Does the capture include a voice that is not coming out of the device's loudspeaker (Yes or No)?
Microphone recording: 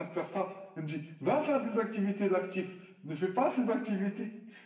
No